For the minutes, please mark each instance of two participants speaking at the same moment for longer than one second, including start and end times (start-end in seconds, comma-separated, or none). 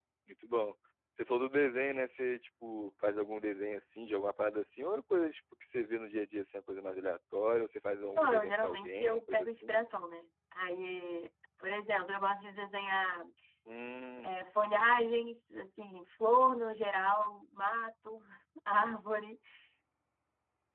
8.2-9.8